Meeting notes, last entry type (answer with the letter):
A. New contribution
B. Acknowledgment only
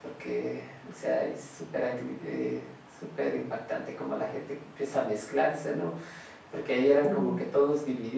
B